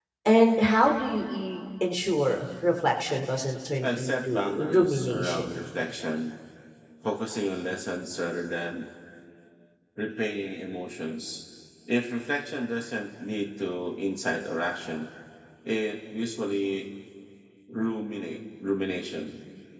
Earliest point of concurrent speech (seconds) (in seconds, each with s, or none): 3.8 s